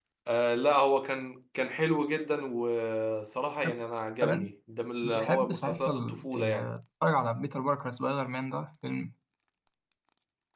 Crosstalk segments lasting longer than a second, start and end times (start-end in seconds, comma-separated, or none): 5.0-6.7